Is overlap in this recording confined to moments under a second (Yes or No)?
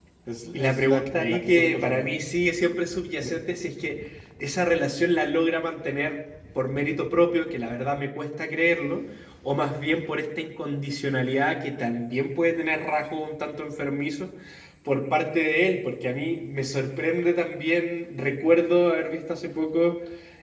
No